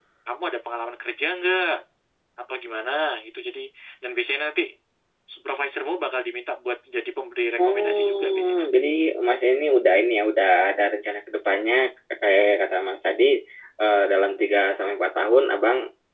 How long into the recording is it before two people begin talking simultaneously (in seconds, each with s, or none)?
7.6 s